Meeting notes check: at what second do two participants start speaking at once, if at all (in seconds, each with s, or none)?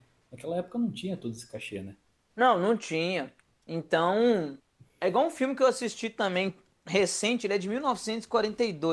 none